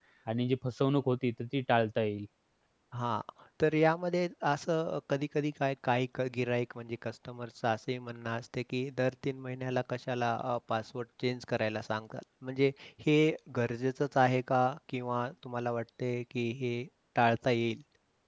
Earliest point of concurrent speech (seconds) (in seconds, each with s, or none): none